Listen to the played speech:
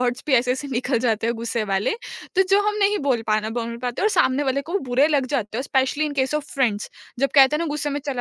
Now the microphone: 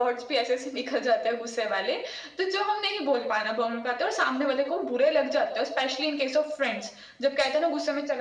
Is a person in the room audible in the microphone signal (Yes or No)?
No